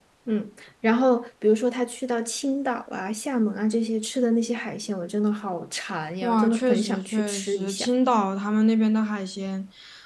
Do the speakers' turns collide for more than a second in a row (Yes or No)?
Yes